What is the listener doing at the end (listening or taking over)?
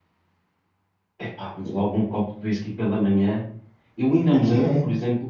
listening